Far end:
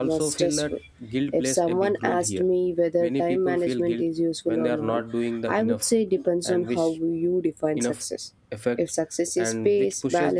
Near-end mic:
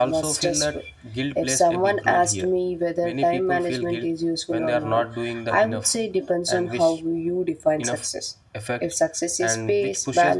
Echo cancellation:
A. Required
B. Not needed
A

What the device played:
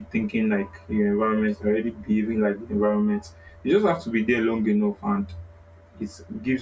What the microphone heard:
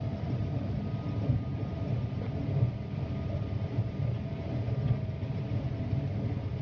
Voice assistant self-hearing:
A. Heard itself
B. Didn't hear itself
B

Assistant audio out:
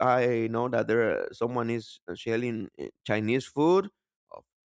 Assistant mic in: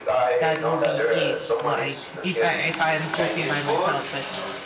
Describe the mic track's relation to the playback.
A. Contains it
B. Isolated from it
A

